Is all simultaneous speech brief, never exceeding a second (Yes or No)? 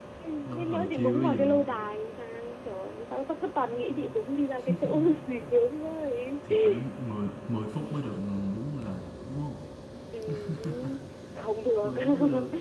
No